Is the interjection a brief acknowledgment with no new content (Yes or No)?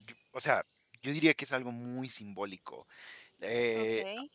No